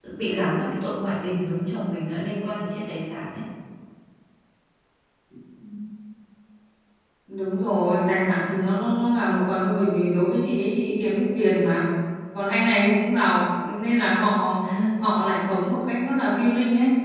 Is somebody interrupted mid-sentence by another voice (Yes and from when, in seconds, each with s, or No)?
No